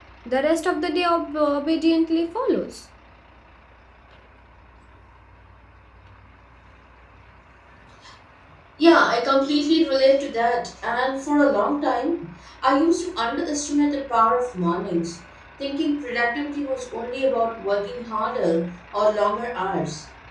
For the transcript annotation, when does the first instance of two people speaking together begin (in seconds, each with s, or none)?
none